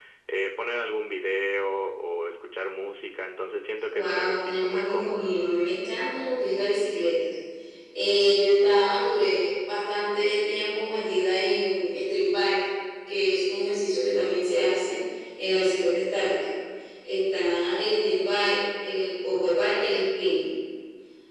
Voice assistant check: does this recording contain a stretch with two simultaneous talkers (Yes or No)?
Yes